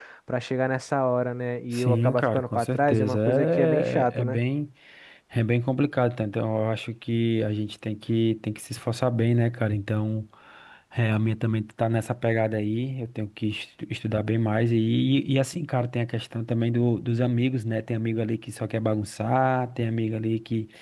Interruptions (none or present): present